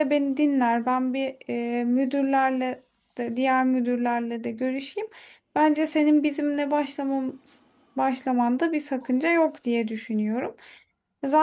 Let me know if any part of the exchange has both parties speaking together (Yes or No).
No